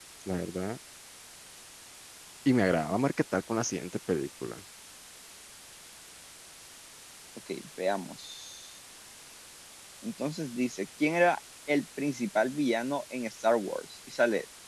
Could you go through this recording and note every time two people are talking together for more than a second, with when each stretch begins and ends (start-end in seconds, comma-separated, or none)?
none